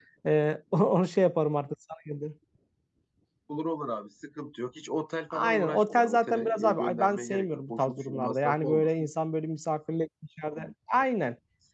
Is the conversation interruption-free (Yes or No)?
No